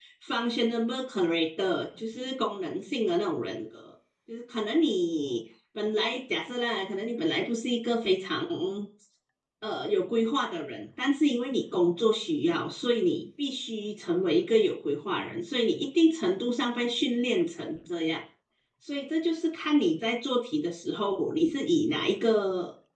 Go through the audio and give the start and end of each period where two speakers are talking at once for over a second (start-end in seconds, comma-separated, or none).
none